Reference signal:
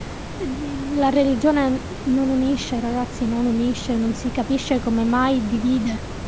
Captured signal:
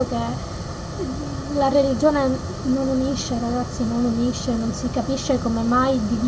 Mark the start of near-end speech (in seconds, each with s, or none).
none